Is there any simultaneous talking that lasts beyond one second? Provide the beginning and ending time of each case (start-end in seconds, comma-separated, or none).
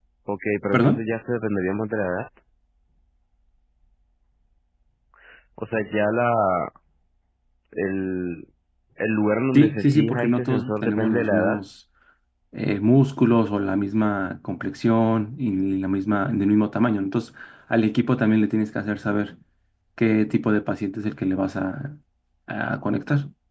9.6-11.6